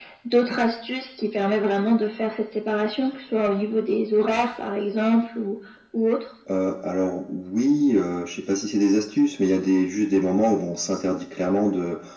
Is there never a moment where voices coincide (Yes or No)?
Yes